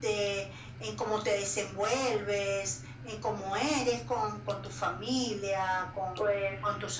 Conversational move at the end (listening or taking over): listening